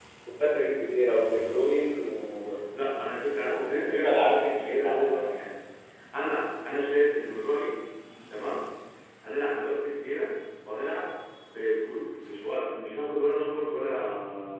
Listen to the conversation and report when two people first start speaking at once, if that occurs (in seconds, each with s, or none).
3.3 s